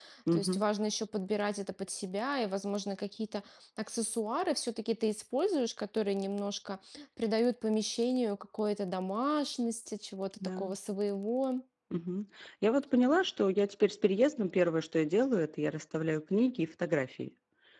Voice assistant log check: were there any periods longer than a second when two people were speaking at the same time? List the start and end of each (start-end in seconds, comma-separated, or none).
none